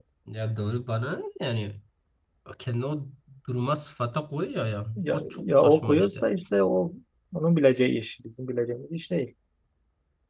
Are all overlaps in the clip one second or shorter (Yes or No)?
No